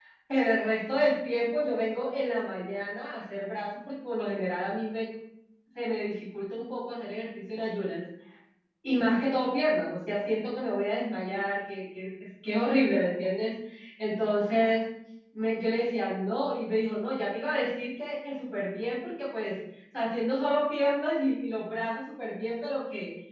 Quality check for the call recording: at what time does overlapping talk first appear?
none

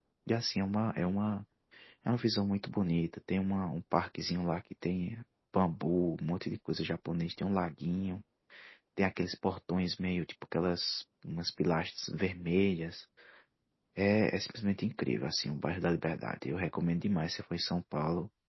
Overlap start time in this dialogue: none

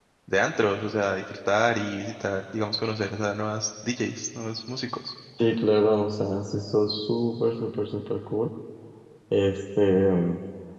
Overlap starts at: none

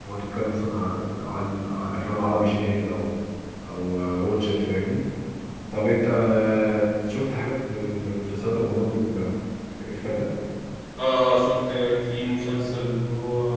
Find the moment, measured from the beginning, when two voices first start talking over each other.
none

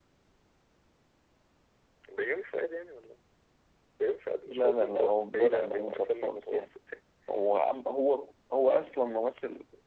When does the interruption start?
4.5 s

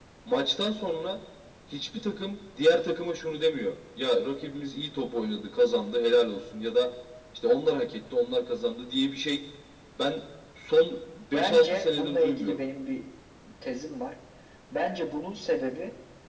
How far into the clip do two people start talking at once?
11.3 s

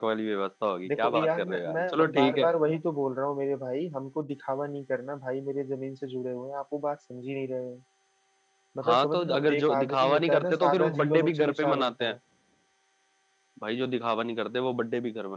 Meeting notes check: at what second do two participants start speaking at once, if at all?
0.9 s

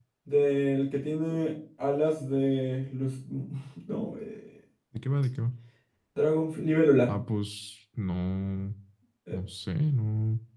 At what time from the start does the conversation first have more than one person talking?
none

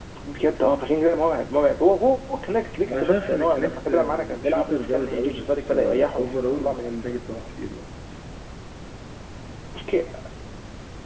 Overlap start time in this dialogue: 2.9 s

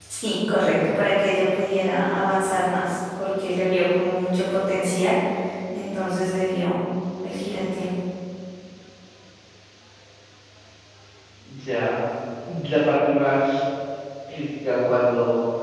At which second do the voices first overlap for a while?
none

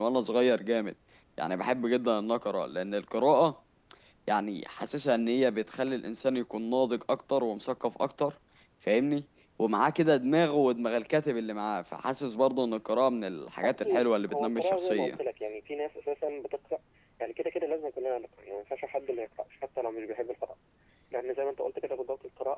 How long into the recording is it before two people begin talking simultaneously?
13.6 s

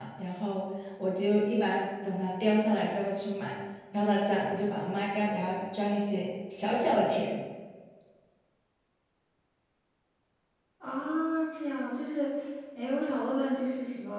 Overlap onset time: none

